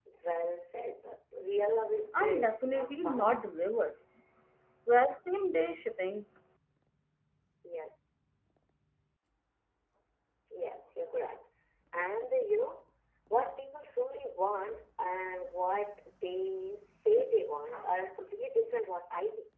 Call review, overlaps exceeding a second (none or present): present